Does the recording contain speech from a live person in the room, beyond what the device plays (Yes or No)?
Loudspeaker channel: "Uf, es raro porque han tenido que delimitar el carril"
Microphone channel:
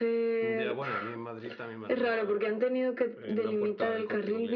Yes